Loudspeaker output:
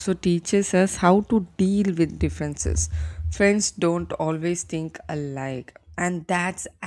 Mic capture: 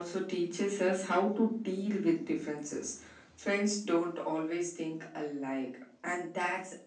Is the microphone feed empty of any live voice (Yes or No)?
Yes